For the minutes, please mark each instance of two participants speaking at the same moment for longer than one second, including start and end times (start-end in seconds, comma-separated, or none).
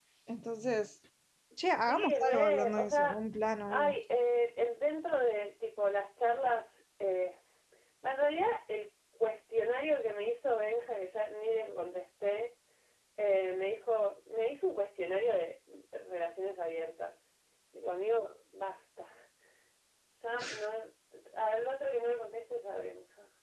1.9-3.2